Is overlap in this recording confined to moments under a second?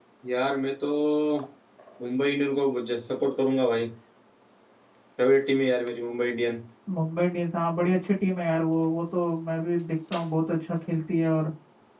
Yes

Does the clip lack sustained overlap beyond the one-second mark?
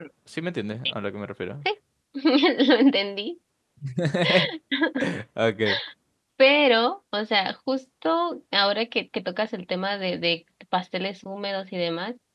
Yes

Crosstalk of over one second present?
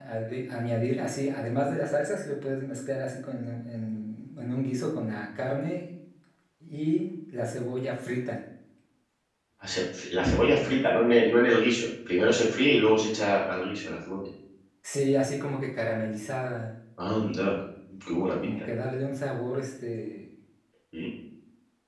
No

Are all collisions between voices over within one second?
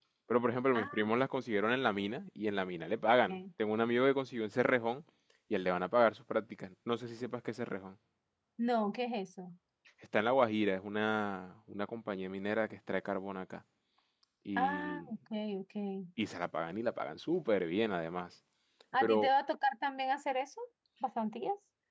Yes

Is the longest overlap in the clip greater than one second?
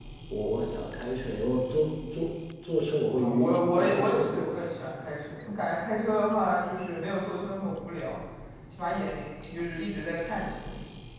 Yes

